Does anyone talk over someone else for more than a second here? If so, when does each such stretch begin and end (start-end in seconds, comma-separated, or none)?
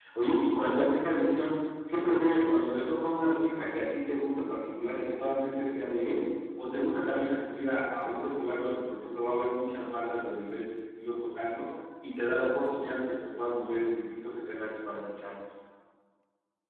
none